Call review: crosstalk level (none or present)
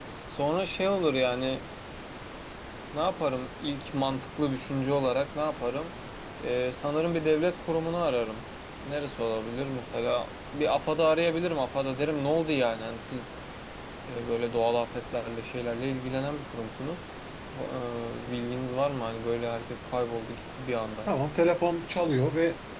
none